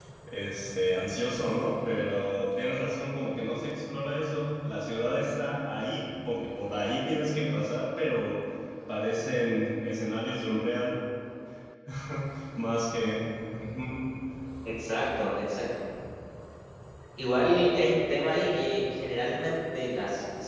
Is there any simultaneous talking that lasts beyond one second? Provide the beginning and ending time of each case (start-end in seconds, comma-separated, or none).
none